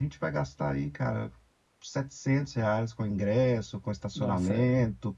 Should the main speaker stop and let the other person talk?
No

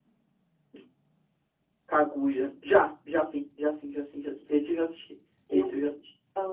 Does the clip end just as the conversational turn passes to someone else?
Yes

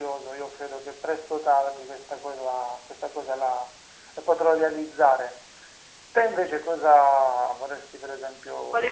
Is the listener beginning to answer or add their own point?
Yes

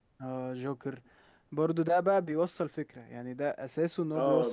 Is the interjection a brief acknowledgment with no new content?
No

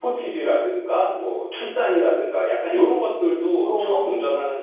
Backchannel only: Yes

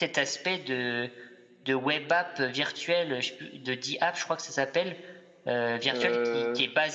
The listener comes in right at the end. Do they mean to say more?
No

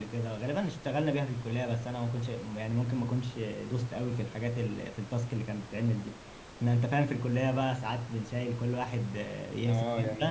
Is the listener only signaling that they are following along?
No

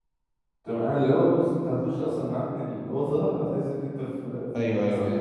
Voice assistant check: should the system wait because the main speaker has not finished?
No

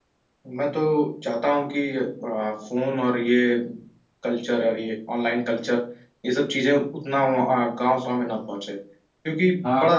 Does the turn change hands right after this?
No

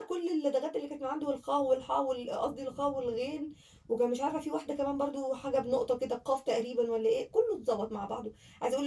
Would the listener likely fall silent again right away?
Yes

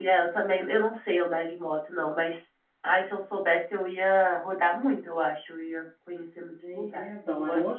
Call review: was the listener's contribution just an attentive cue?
No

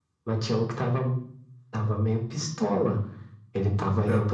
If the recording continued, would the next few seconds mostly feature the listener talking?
No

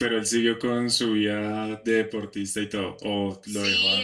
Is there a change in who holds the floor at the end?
Yes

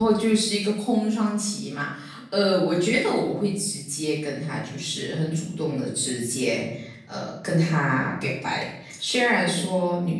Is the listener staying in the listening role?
Yes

